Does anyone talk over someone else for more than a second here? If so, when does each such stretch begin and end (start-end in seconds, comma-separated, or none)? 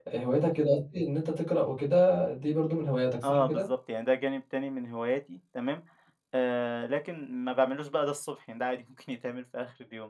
none